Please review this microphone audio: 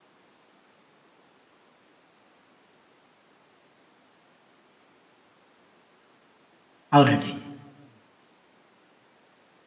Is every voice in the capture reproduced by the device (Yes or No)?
No